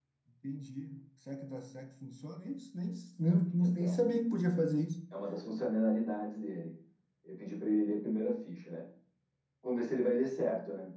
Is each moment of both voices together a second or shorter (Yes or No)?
Yes